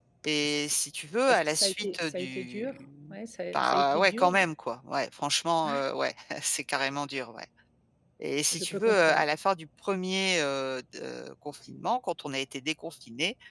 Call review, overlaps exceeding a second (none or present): present